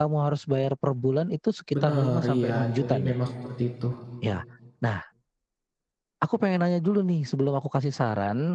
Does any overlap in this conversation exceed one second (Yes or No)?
Yes